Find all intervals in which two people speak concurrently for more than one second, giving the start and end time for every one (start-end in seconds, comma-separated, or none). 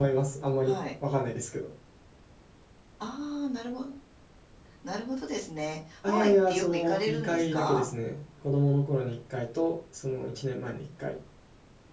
6.0-7.8